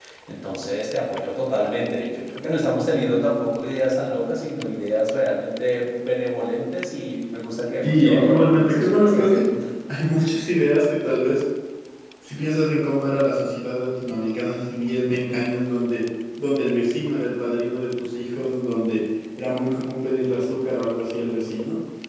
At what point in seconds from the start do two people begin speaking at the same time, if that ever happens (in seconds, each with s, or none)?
7.8 s